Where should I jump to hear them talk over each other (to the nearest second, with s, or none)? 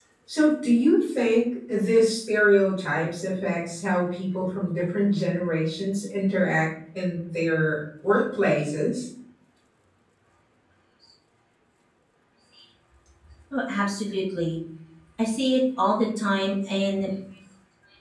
none